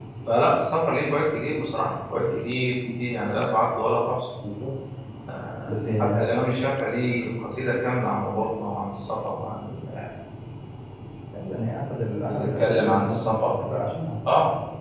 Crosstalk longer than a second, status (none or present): present